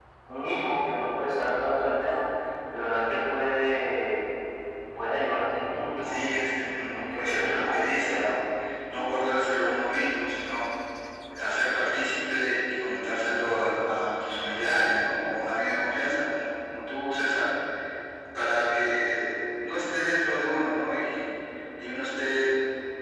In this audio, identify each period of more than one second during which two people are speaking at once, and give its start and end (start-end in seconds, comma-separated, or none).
6.0-8.4